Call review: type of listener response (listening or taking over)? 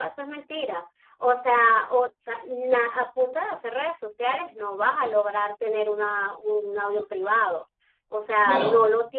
listening